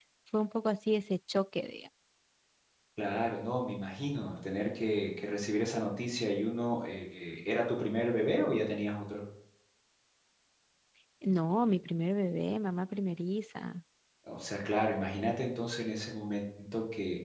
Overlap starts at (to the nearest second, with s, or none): none